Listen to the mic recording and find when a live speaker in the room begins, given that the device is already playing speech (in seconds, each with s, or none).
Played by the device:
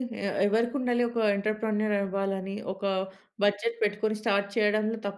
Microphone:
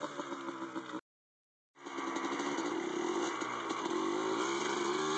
none